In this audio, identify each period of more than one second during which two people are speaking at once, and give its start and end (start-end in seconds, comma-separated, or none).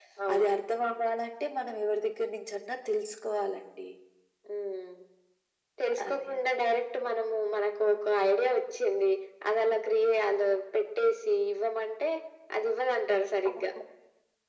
none